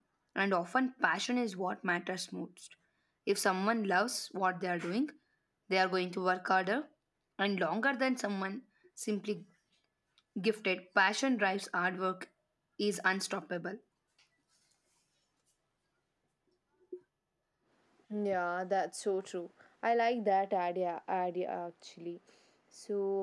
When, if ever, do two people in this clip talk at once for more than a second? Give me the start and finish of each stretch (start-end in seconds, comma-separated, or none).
none